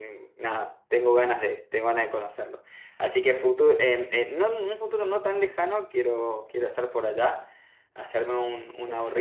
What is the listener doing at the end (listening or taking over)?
listening